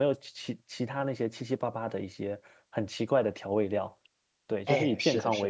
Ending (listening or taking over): taking over